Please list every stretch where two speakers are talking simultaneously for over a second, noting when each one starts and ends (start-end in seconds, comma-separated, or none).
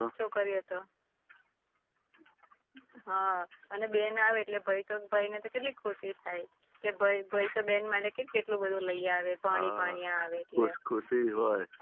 none